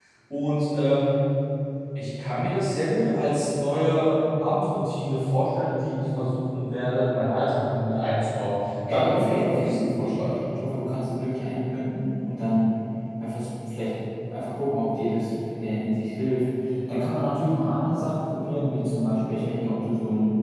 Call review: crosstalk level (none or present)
present